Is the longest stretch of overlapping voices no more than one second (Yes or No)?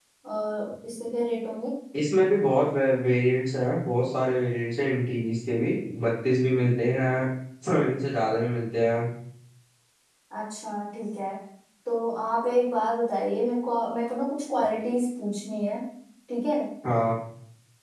Yes